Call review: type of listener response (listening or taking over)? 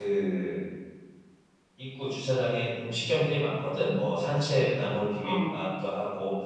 listening